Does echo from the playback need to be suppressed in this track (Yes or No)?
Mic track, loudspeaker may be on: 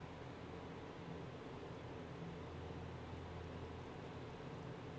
No